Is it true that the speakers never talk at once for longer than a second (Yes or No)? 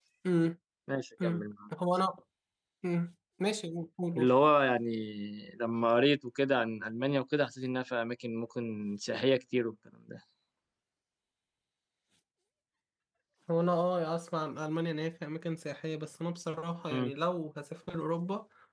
Yes